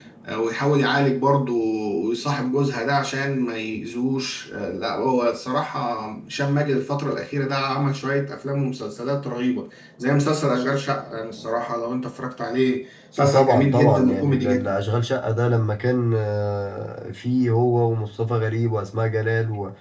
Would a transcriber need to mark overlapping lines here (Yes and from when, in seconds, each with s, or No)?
Yes, from 13.2 s